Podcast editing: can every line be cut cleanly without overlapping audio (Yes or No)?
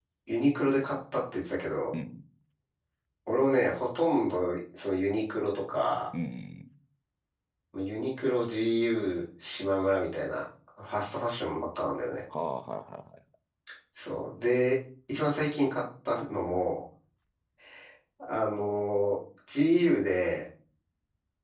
Yes